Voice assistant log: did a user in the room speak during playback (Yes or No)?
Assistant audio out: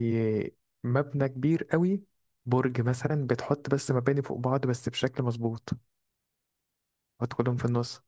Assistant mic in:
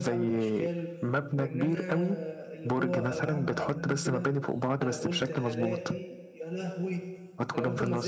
Yes